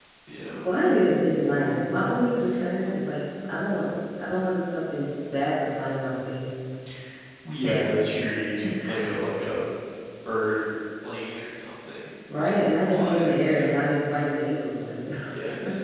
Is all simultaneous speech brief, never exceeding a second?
No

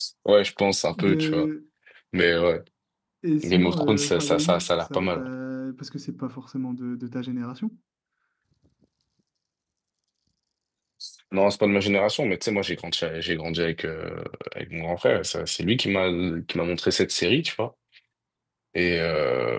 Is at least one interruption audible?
Yes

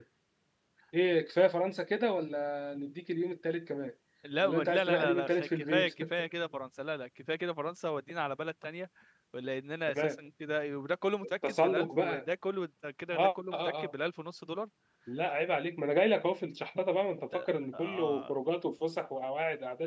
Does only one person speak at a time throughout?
No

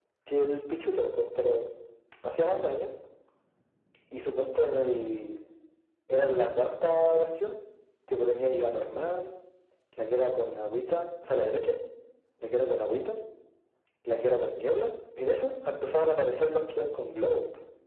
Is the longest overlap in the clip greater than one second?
No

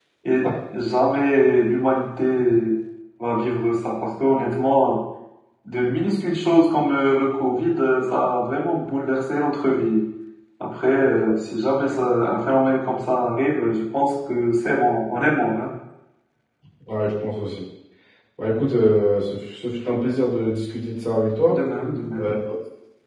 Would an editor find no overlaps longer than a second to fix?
Yes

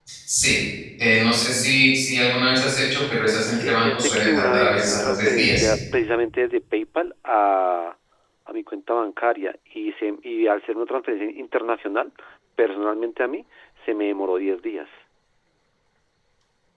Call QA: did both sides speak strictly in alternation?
No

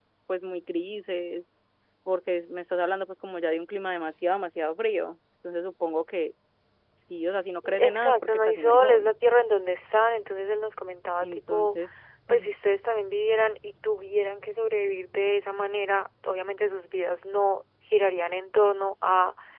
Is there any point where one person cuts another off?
Yes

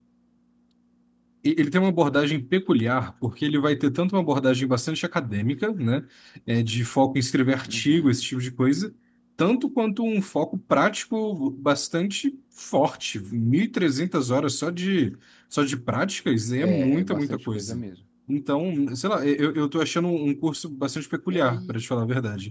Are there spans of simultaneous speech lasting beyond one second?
Yes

